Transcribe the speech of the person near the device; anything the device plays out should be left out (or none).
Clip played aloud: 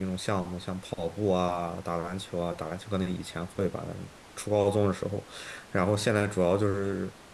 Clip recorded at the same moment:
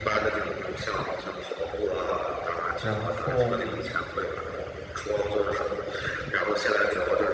然后